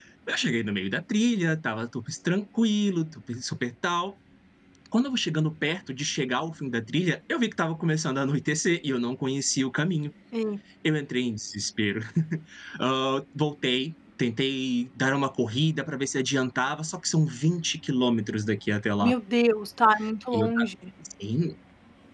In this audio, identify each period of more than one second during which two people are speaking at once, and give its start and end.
none

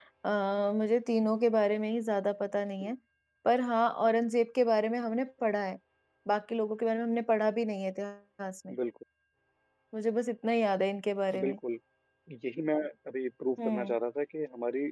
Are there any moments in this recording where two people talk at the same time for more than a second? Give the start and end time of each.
none

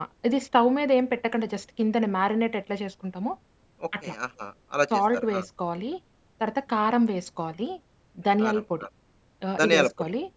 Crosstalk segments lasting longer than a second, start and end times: none

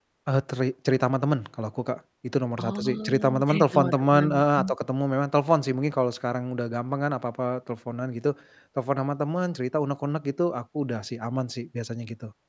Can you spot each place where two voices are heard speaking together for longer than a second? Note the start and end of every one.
2.6-4.7

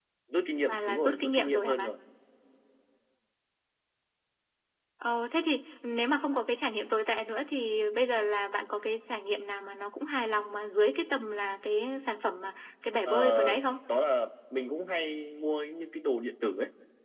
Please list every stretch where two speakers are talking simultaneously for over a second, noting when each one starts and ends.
0.7-1.9

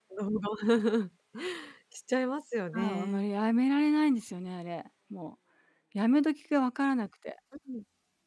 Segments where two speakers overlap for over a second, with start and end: none

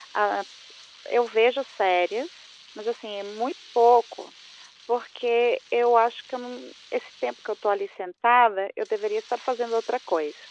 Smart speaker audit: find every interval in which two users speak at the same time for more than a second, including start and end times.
none

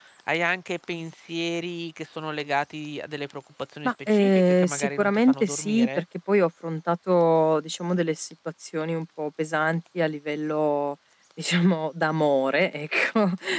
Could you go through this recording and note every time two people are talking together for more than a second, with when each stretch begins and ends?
3.8-6.0

